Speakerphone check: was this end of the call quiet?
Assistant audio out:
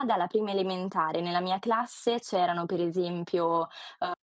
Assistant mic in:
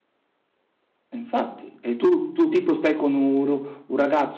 No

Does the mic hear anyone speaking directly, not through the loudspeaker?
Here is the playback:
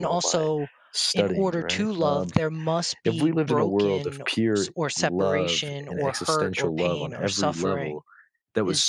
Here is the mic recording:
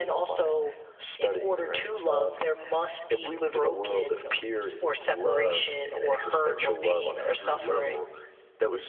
No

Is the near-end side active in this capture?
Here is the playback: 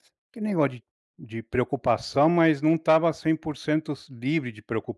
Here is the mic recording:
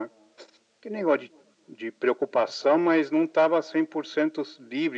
No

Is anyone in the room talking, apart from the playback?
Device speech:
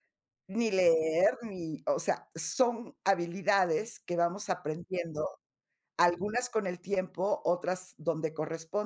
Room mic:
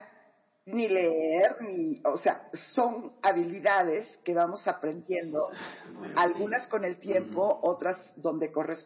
Yes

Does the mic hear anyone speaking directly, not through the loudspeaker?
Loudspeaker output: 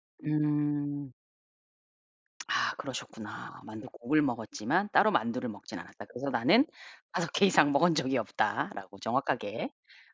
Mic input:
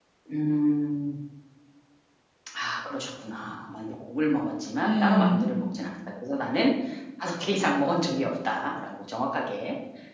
Yes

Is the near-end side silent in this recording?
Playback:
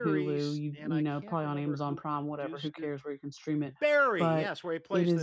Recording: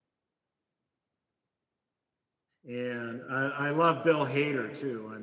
No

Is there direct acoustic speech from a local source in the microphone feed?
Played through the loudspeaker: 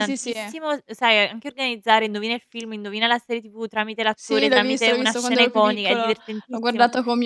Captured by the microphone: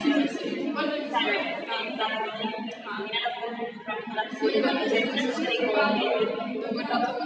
Yes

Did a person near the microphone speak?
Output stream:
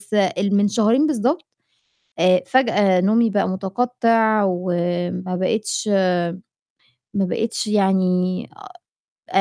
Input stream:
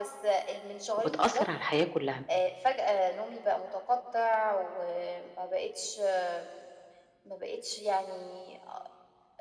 Yes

